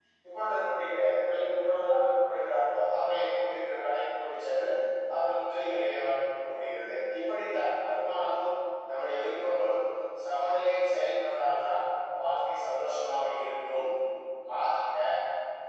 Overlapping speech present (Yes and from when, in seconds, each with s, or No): No